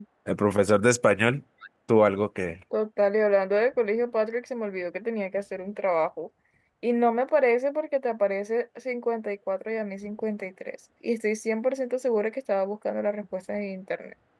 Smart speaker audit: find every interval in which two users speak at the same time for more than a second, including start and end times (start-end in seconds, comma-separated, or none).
none